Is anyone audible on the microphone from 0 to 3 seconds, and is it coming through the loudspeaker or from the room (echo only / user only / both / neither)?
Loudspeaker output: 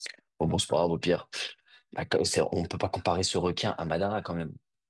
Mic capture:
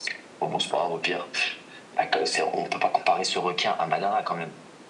echo only